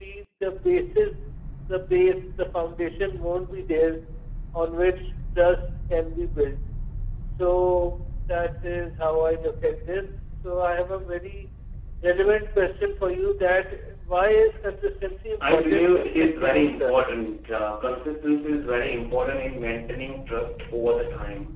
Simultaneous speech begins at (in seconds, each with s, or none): 15.4 s